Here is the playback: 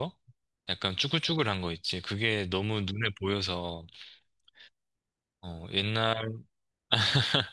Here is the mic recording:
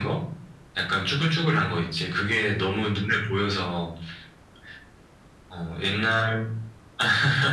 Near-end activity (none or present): none